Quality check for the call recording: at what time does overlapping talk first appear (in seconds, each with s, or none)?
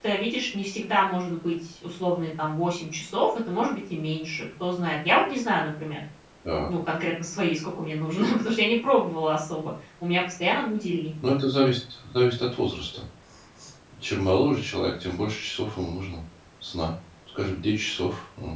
none